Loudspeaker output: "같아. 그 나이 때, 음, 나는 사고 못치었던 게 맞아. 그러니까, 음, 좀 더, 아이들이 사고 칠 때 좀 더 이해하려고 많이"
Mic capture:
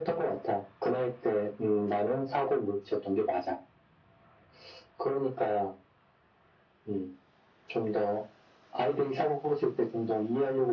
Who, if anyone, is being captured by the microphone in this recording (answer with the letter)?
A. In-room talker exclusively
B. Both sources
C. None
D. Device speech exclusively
D